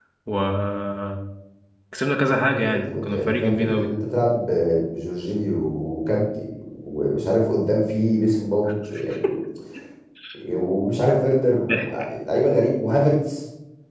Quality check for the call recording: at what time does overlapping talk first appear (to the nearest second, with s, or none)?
3 s